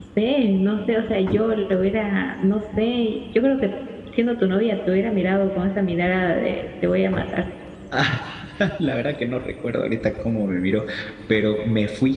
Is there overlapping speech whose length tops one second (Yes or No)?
No